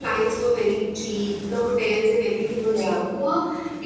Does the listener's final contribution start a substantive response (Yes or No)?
No